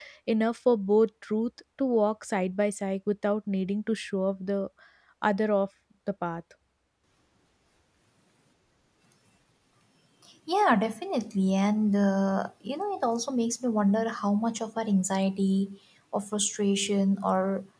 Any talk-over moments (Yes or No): No